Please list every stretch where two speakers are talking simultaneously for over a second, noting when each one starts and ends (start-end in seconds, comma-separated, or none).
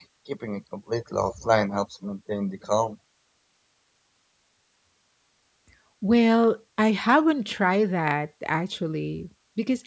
none